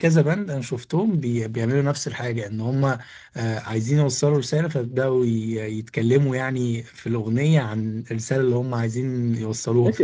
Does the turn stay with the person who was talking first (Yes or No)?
No